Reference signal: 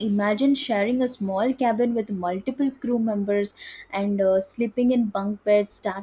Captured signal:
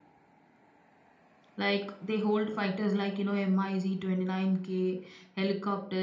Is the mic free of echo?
Yes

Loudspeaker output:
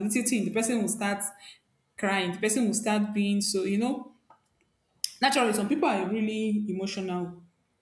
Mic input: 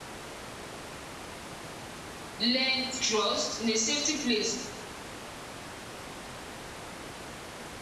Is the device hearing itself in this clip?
No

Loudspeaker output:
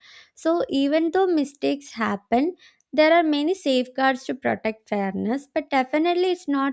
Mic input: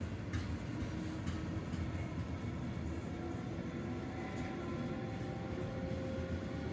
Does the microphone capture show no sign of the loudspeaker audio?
Yes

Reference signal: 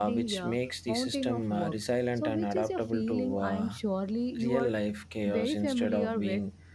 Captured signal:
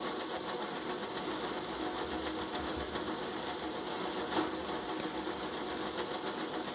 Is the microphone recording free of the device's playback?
Yes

